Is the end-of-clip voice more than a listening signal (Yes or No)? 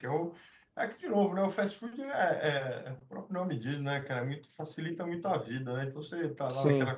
No